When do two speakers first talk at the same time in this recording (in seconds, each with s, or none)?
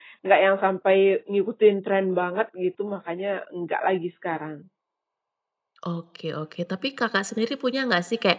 none